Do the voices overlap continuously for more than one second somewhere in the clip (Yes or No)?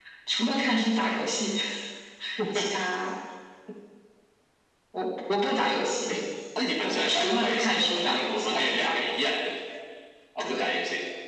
Yes